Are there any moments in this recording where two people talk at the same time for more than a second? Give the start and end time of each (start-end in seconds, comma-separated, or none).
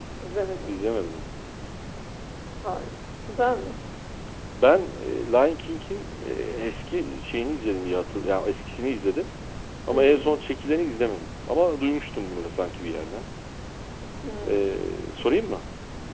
none